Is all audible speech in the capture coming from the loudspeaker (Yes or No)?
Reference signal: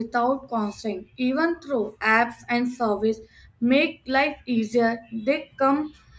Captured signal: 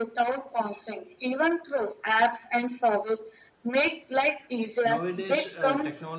No